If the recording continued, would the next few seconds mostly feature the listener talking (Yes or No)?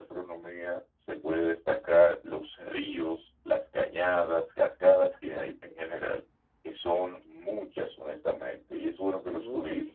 No